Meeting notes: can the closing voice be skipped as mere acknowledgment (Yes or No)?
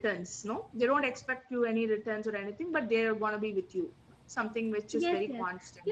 No